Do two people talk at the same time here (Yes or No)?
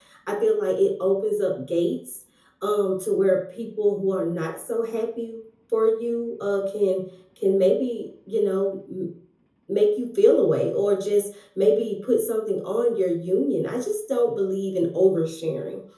No